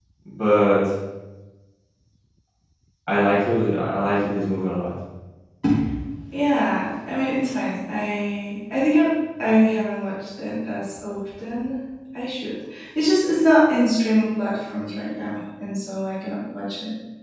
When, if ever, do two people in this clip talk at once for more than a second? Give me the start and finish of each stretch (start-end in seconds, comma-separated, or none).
none